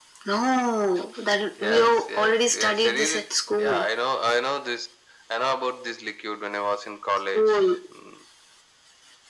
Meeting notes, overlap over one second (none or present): present